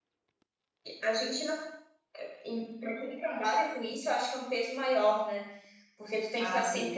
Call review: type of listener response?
listening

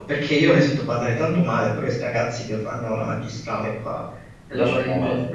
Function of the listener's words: listening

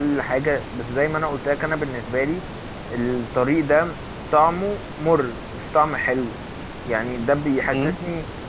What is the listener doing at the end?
listening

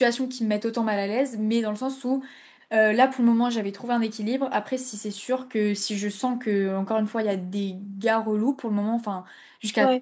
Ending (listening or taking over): listening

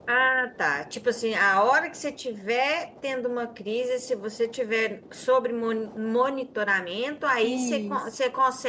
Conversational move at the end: listening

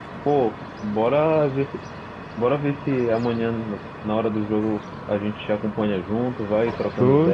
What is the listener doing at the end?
taking over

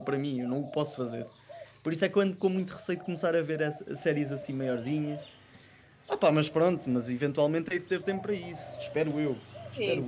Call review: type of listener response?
taking over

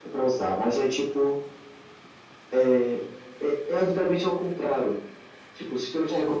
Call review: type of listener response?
listening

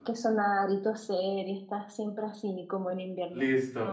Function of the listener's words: taking over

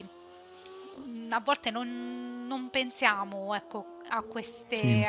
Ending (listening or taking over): listening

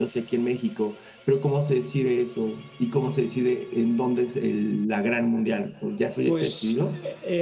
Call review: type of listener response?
taking over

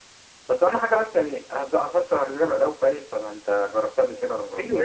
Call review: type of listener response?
taking over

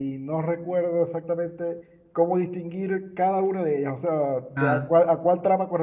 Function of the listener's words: listening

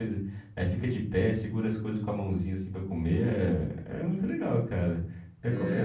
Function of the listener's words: taking over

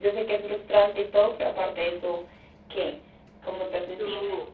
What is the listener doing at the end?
taking over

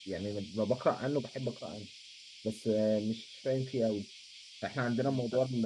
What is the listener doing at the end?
listening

